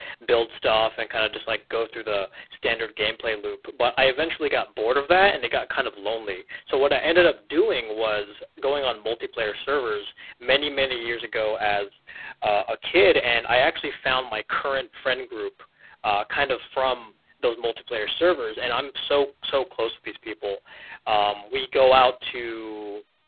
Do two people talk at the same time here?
No

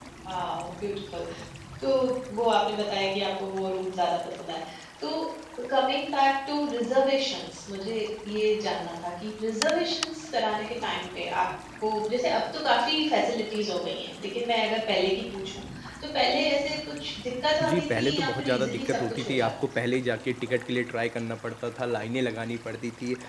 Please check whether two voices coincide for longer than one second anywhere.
Yes, from 17.6 s

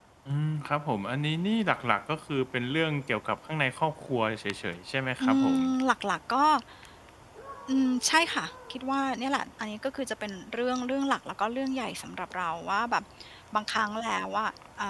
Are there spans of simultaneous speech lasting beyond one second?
No

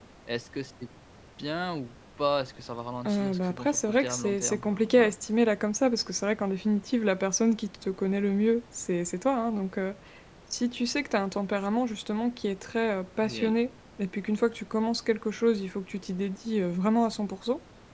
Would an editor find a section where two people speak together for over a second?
Yes, from 3.1 s

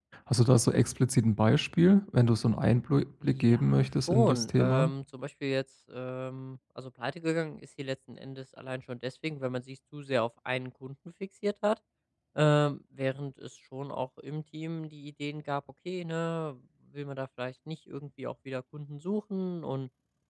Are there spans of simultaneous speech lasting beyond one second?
Yes, from 3.2 s

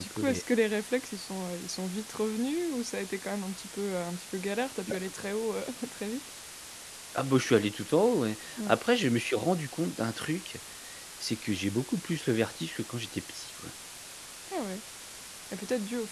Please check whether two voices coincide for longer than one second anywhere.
No

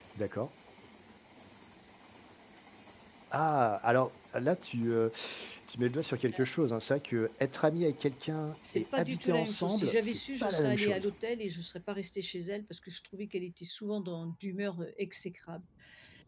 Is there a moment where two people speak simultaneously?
Yes, from 8.6 s

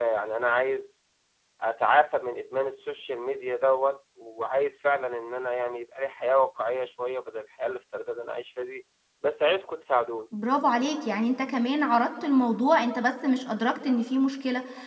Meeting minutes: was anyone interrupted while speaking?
No

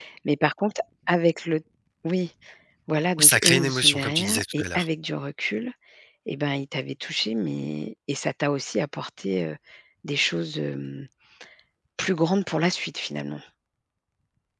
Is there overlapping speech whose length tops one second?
Yes, from 3.2 s

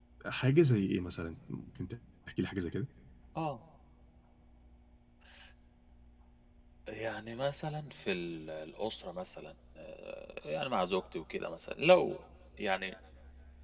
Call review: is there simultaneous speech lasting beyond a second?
No

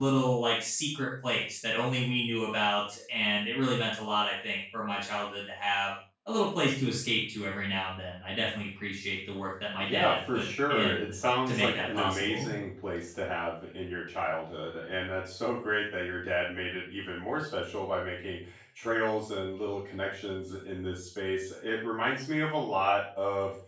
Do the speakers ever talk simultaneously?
Yes, from 9.8 s

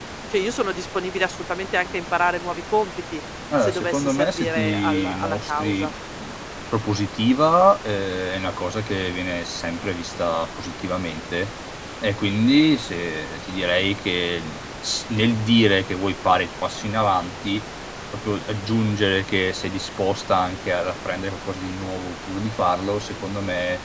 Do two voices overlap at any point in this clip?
Yes, from 3.5 s

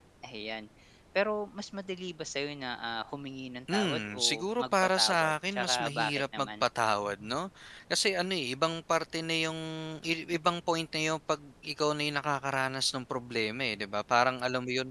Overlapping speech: Yes, from 3.7 s

